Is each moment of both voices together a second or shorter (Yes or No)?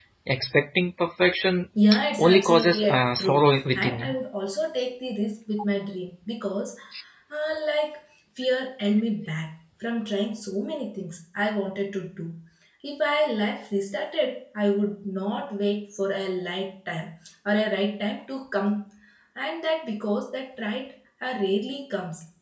No